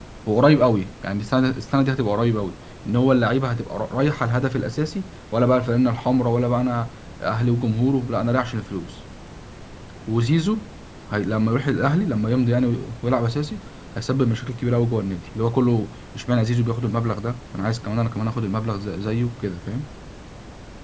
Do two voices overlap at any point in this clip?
No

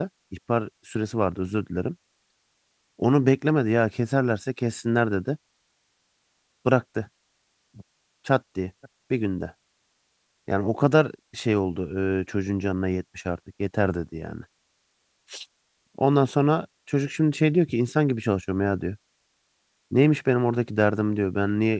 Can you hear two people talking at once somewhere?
No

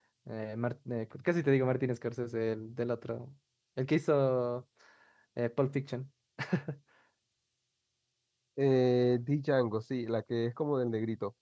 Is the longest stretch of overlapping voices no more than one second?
Yes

